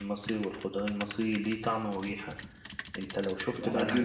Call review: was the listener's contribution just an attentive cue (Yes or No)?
Yes